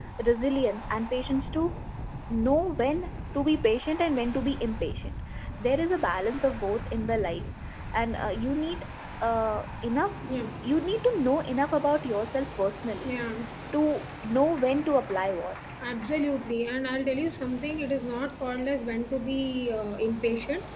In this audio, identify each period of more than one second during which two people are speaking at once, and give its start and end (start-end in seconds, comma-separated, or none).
none